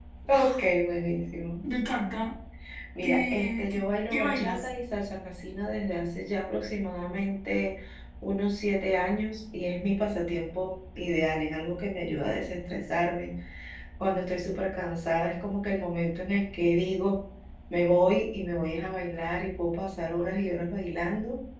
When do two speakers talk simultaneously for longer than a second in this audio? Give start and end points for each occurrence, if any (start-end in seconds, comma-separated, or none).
3.0-4.7